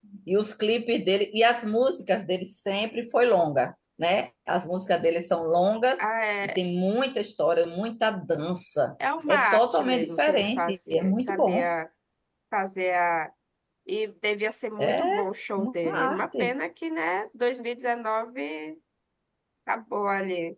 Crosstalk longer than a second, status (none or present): present